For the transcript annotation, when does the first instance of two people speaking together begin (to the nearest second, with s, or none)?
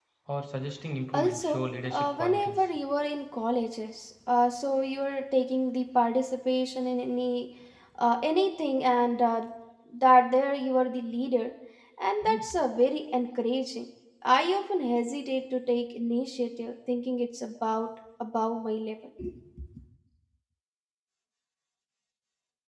1 s